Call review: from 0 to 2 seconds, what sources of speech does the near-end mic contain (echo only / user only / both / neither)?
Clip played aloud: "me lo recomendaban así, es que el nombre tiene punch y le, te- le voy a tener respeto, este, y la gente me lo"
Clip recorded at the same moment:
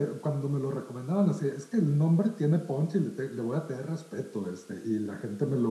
echo only